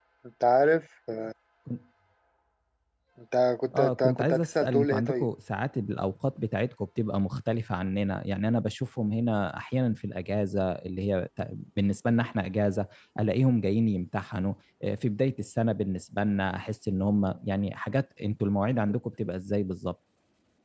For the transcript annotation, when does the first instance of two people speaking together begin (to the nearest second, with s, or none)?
4 s